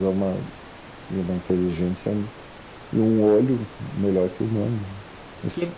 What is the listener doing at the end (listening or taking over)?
taking over